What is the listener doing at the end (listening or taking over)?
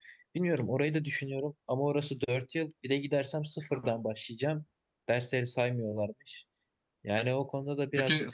taking over